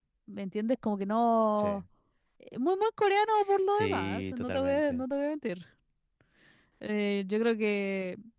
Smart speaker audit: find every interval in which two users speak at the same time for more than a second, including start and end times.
3.7-5.0

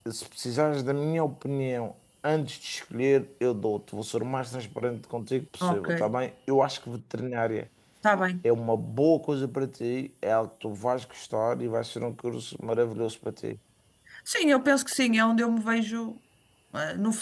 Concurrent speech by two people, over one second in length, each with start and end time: none

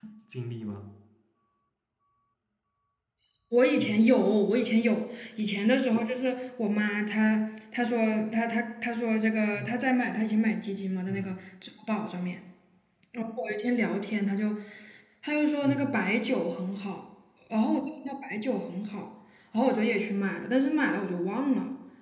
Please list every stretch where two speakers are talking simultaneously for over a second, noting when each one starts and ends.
none

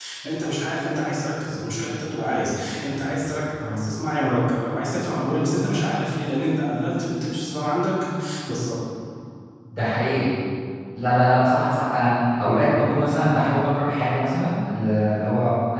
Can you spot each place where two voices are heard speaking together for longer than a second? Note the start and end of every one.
none

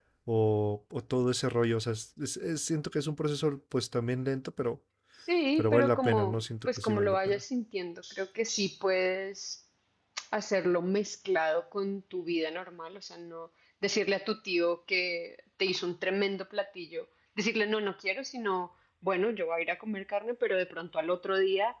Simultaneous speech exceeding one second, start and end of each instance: 5.6-7.4

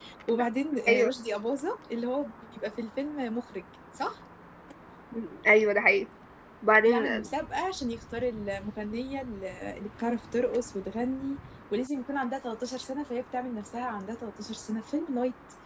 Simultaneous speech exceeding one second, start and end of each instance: none

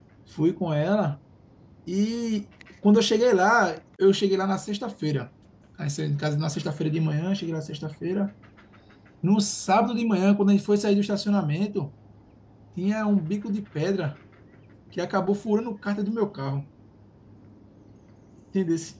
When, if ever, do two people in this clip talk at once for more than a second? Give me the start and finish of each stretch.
none

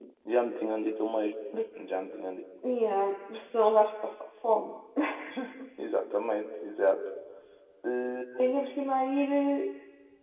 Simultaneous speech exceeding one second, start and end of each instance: none

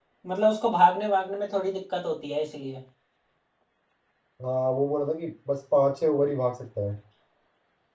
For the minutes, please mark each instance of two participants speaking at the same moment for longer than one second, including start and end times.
none

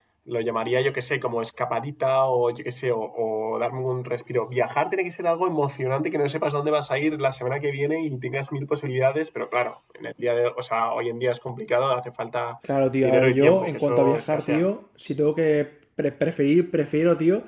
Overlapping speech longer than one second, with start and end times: 13.0-14.7

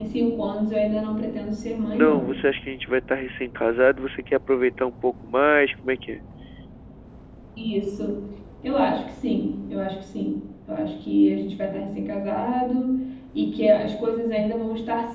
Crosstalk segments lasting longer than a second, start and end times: none

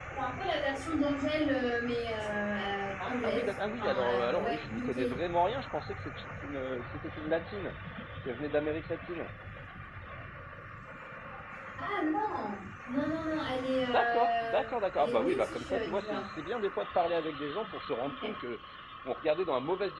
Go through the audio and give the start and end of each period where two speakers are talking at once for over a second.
3.0-5.2, 13.9-16.3

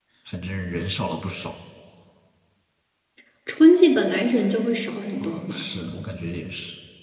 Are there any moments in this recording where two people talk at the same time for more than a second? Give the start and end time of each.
none

